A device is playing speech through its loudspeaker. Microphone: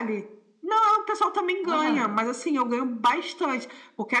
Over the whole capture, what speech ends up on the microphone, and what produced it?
both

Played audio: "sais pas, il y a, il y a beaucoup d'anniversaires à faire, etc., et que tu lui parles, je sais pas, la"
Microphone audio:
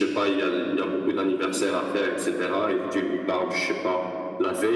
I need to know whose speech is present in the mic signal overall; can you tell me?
echo only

